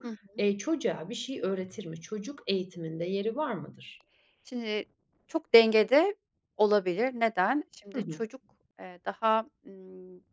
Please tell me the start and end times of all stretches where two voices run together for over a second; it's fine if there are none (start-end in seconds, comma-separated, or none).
none